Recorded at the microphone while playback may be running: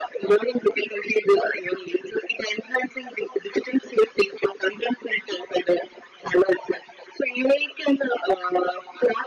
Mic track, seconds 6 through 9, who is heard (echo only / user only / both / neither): echo only